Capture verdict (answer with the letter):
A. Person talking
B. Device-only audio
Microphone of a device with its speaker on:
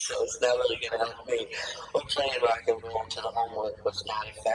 B